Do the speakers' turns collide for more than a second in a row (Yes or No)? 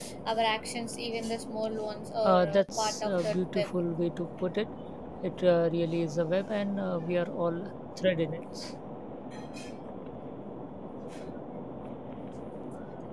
Yes